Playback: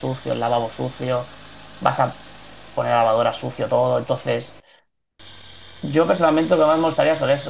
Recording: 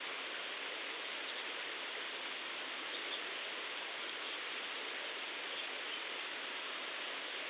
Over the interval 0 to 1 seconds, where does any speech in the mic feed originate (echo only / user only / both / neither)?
neither